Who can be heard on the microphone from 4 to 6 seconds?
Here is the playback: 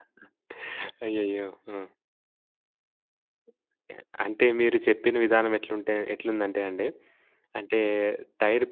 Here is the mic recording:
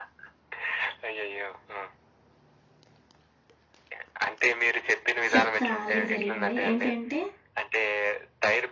both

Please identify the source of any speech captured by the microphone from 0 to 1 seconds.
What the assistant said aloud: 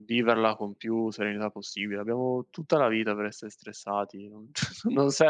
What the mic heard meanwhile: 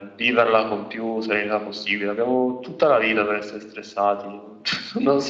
echo only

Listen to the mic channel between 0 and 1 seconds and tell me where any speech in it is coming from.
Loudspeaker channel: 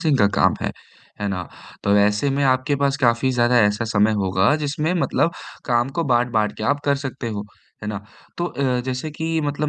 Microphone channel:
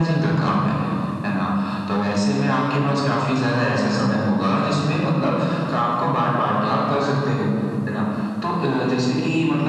echo only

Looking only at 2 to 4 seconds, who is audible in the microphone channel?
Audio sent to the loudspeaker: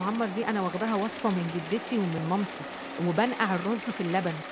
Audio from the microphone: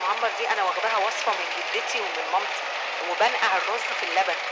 echo only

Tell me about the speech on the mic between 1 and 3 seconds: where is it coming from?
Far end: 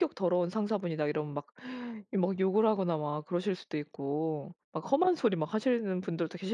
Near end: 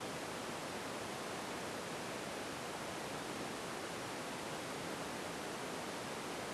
neither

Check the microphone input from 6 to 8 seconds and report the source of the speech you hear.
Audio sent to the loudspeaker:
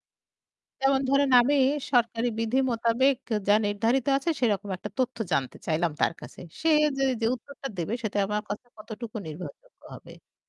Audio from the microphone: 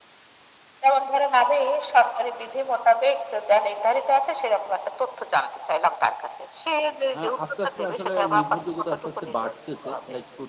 both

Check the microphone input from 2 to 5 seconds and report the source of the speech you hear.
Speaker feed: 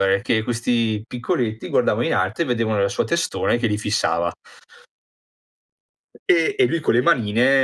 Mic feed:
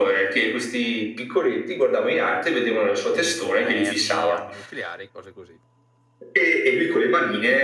both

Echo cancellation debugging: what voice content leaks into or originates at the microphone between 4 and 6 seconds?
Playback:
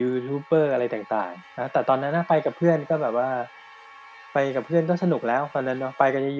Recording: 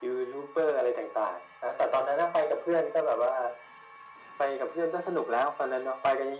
echo only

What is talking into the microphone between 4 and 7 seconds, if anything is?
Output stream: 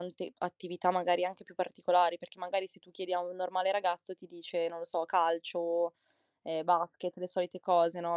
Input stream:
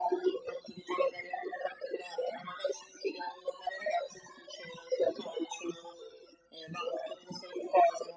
echo only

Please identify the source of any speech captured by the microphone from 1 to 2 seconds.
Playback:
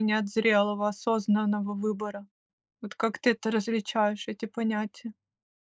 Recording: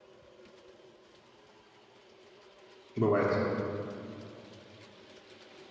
neither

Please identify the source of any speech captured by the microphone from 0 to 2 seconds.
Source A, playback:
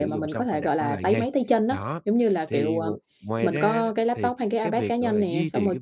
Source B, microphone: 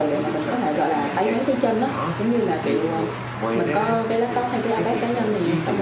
echo only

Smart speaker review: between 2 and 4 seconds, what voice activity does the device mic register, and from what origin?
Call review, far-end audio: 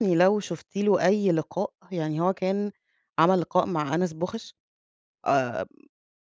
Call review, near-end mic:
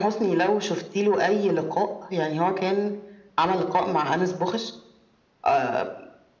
echo only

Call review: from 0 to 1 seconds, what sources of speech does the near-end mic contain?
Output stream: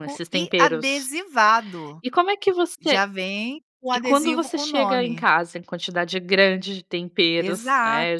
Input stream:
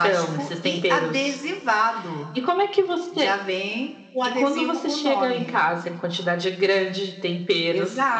echo only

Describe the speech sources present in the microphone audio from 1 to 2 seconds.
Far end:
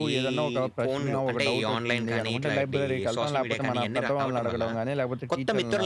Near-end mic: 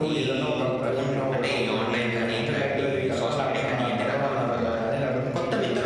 echo only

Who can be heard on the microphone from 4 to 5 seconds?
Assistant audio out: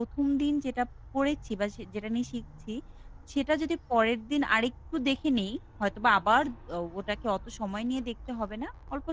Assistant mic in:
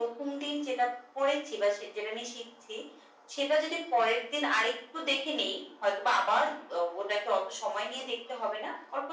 echo only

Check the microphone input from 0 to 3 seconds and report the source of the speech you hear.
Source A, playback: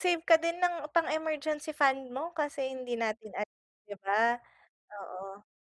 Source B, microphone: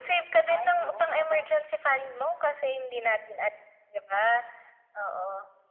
both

